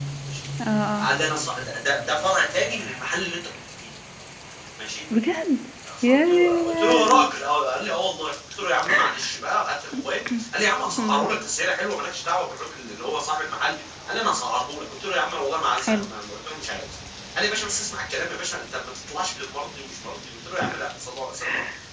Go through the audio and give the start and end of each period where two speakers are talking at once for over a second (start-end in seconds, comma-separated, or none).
6.0-7.3